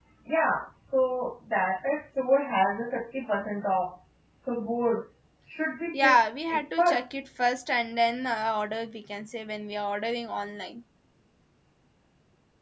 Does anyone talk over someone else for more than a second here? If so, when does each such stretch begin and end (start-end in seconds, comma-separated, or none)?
5.9-7.2